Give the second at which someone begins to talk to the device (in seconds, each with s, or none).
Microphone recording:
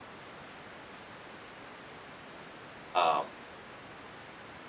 2.9 s